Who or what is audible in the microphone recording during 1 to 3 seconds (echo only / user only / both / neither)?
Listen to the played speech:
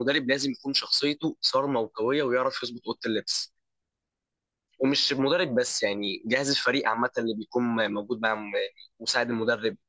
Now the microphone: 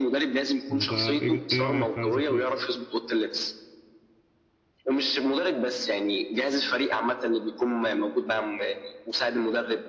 both